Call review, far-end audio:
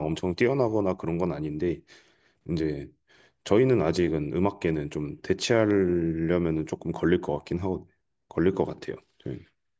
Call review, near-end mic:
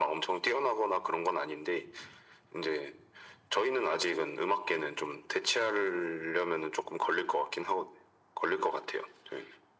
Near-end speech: none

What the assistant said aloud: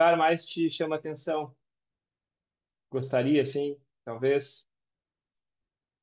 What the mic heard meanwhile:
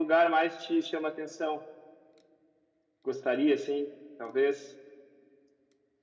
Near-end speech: none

